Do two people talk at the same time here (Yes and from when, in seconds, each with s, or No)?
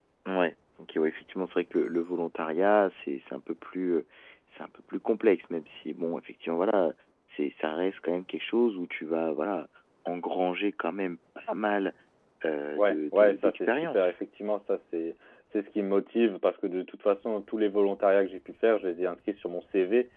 Yes, from 12.8 s